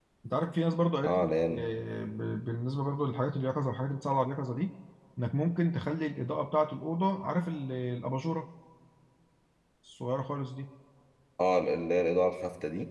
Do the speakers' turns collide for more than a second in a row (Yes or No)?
No